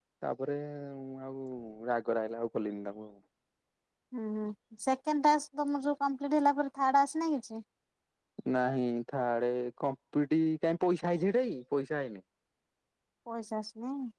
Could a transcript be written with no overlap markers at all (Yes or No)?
Yes